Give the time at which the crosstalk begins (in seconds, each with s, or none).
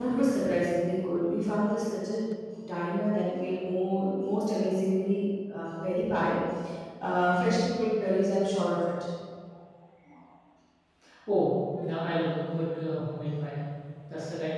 none